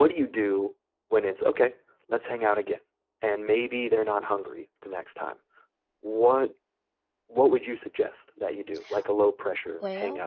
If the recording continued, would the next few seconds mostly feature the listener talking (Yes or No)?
Yes